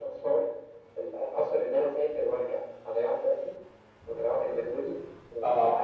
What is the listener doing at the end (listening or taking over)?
listening